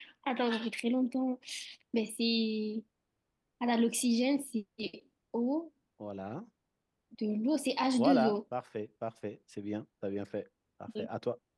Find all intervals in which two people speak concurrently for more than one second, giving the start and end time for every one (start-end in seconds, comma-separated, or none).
none